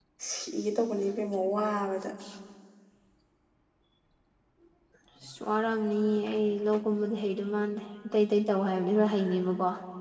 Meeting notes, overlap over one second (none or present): none